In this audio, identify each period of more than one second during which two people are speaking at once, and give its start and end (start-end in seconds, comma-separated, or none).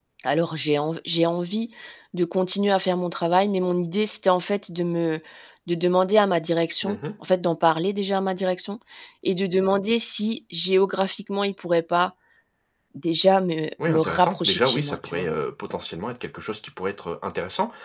13.9-15.3